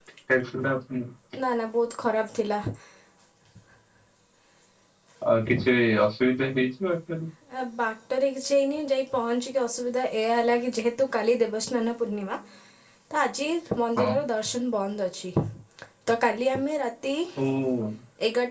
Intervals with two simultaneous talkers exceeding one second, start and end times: none

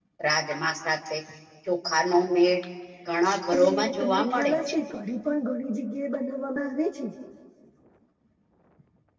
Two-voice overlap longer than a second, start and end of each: 3.5-4.8

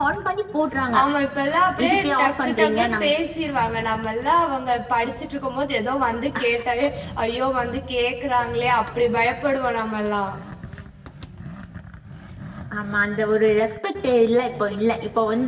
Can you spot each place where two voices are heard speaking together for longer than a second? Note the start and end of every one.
1.8-3.1

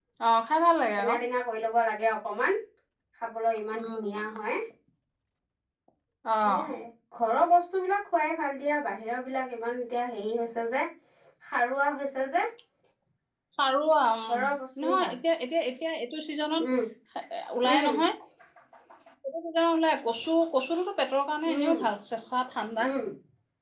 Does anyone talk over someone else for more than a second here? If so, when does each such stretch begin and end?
none

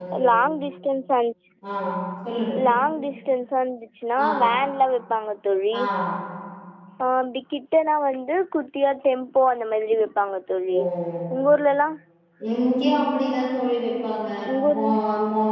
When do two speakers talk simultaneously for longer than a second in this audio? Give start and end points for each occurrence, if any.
none

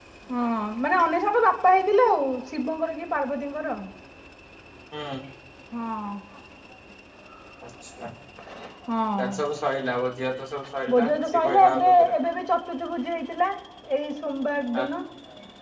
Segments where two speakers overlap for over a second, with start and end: 10.9-12.1

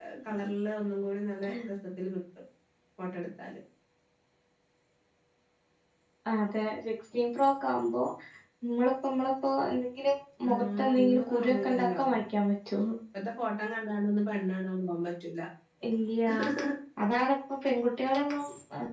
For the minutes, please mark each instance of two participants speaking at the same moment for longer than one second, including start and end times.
10.6-12.0

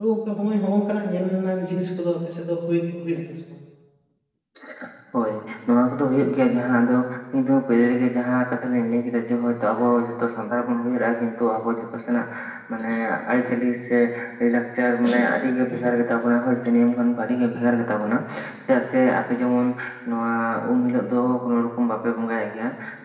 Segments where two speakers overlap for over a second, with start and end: none

